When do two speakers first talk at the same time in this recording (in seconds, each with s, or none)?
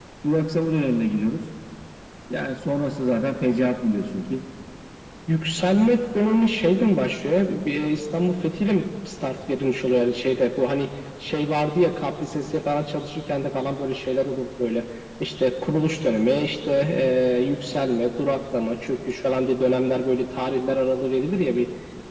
none